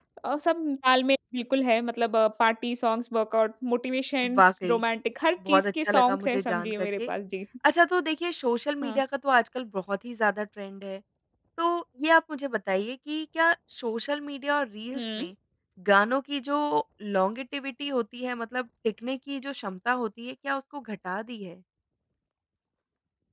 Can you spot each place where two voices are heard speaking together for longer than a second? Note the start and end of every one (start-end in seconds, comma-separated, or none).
5.5-7.1